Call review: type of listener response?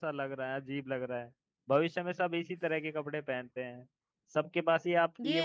listening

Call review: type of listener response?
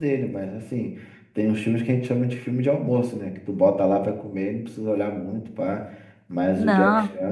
listening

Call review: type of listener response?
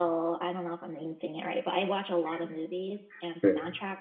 listening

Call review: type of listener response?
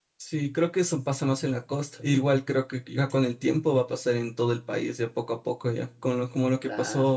listening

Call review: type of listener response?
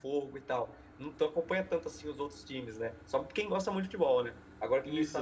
listening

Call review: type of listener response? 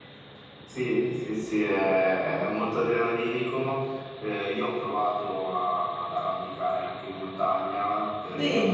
listening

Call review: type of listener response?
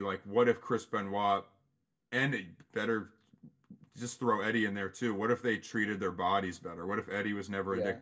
listening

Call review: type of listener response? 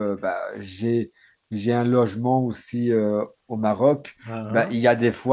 listening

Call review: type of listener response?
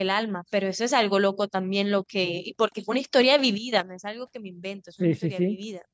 taking over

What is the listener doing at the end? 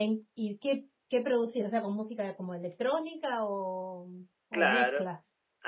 taking over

